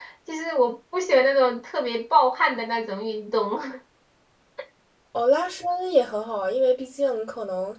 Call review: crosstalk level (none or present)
none